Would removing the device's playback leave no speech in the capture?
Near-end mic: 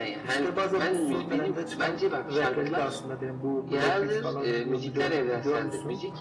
Yes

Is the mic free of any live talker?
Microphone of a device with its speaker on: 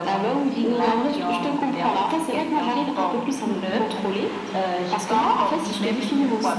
Yes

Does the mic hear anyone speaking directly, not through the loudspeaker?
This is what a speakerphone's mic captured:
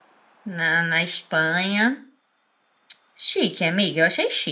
Yes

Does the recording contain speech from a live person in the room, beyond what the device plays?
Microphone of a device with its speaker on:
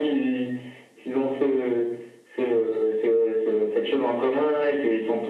No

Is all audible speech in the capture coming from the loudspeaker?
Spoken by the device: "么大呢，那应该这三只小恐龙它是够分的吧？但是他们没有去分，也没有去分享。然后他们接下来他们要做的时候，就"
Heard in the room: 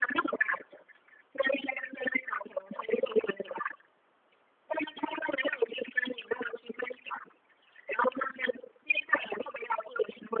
Yes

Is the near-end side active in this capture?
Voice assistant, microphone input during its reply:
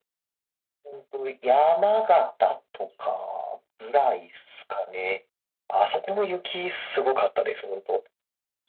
No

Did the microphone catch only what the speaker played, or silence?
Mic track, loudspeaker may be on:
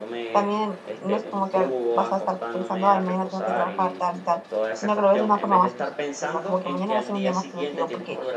No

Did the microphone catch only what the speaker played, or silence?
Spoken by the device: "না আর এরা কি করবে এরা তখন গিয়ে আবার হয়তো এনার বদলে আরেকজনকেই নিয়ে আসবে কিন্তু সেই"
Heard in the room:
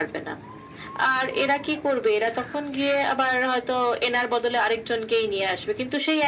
Yes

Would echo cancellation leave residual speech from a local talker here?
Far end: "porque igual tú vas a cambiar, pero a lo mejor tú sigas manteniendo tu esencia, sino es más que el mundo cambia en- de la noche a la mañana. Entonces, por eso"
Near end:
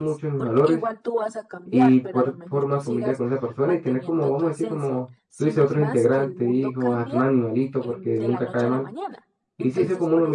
Yes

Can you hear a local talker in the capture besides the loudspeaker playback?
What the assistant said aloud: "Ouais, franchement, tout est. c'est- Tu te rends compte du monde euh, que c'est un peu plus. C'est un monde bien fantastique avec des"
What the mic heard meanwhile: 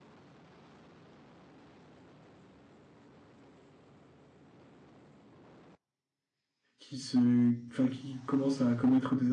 Yes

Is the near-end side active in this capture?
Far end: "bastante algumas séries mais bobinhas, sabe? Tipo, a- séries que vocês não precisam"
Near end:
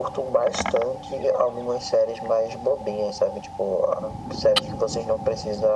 No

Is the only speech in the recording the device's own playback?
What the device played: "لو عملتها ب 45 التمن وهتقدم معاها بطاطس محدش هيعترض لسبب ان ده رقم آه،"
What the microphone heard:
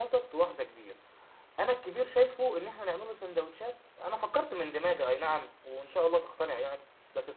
No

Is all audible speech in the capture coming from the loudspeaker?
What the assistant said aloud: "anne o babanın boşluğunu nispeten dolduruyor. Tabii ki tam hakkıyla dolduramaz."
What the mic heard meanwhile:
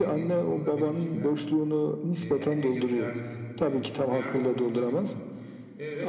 No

